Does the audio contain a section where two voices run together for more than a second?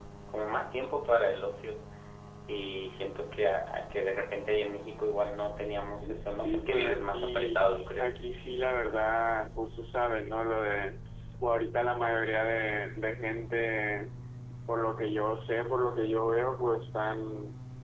Yes, from 5.8 s

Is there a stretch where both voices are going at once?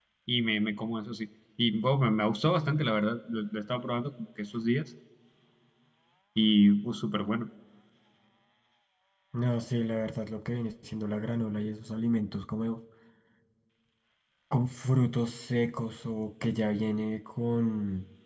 No

